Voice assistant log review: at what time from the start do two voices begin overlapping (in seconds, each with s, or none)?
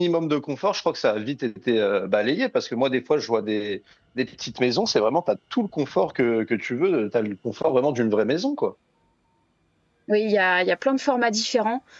none